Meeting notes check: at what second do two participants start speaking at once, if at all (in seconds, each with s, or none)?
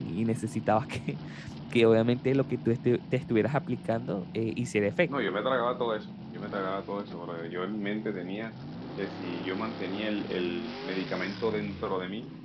none